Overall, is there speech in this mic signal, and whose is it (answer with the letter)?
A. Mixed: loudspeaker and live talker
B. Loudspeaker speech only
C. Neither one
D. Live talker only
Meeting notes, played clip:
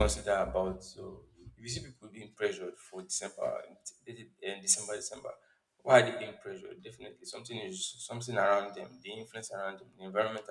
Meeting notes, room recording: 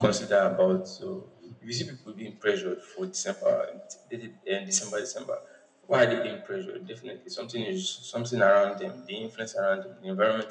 B